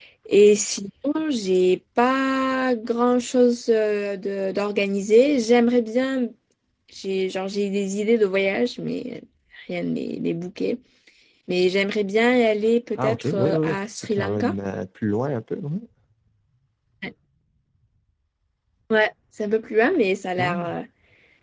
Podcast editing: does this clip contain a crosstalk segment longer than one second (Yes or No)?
Yes